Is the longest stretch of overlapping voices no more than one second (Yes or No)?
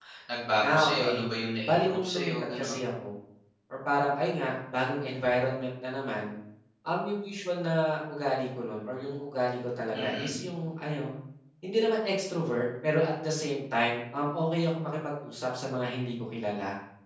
No